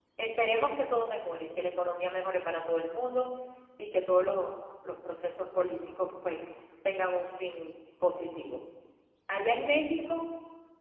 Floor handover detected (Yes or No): No